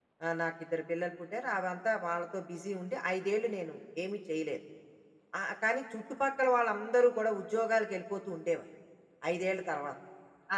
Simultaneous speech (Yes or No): No